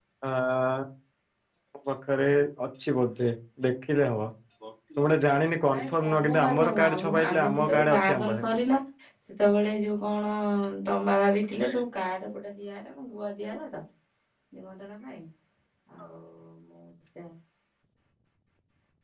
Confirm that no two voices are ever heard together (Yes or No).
No